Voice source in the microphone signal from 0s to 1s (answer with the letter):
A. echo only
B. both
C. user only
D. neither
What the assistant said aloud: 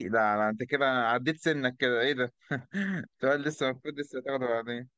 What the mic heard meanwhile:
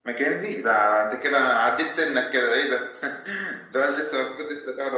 A